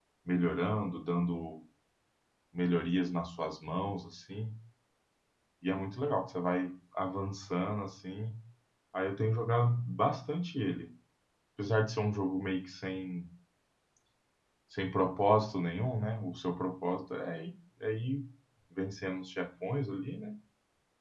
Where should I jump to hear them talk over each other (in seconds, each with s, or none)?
none